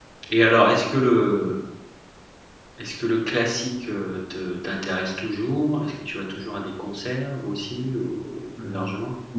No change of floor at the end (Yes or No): No